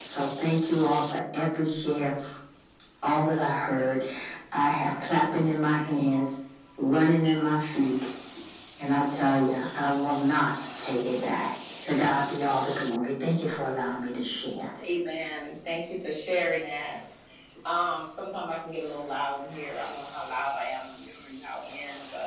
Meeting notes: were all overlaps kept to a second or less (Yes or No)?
Yes